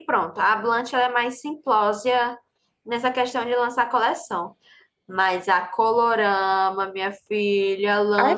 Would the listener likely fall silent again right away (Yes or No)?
No